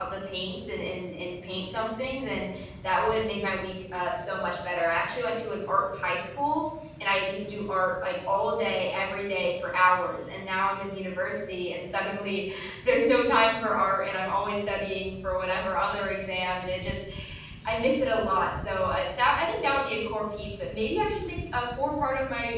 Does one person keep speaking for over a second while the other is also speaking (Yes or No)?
No